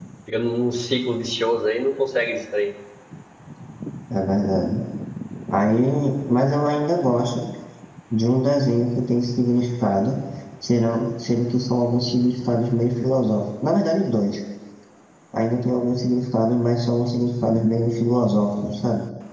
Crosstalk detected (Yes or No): No